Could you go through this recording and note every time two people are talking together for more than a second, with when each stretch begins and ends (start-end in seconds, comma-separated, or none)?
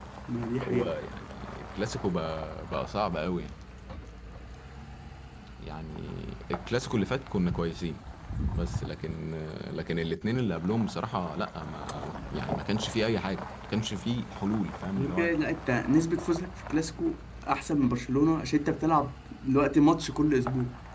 none